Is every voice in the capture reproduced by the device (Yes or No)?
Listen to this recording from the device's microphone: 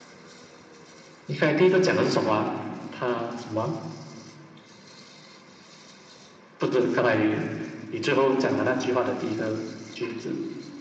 Yes